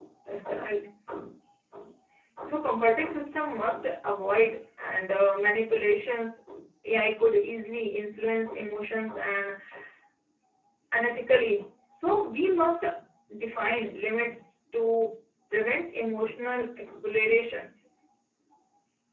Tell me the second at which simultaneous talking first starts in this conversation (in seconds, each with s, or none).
none